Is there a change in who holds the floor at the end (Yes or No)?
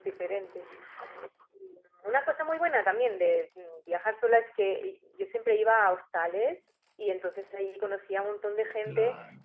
No